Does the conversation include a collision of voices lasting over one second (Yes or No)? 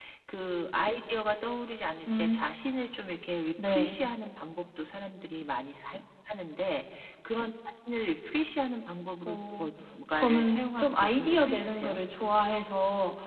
Yes